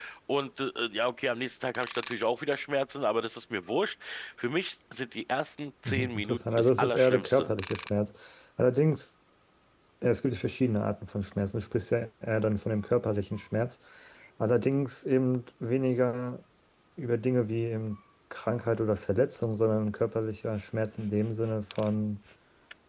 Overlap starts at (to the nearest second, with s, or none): 6 s